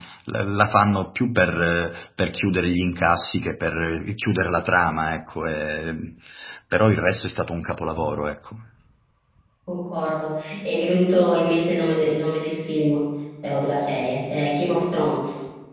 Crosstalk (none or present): none